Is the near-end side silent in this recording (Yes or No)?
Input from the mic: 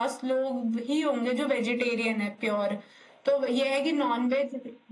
Yes